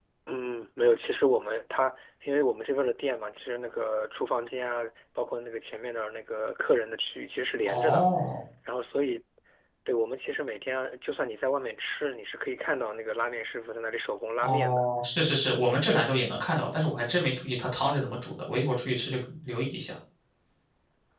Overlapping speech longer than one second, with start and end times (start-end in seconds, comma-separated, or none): none